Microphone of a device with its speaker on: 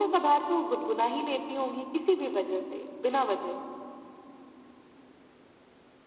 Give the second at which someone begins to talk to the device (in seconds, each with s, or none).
none